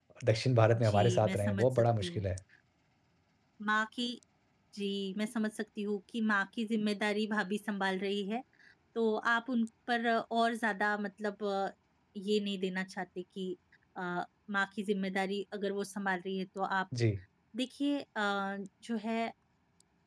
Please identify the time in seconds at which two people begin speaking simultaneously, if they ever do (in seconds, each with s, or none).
0.8 s